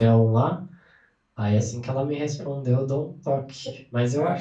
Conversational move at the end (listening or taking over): listening